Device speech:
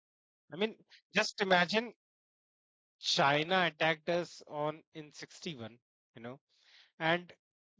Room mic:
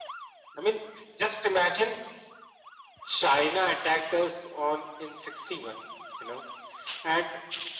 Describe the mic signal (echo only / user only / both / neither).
echo only